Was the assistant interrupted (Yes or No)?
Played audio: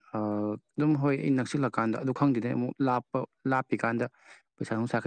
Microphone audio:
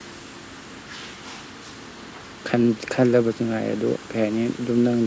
Yes